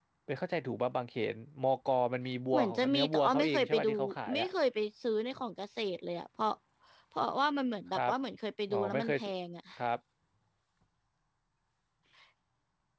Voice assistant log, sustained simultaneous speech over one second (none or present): present